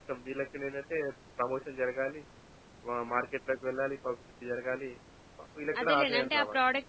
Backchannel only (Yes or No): No